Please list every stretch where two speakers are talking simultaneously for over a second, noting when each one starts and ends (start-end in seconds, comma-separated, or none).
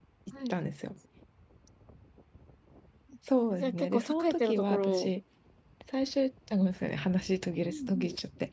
3.5-5.1